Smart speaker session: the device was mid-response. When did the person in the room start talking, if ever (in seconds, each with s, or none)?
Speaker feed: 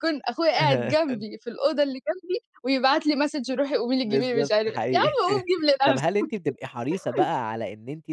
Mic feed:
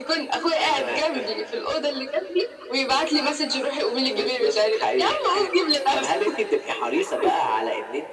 none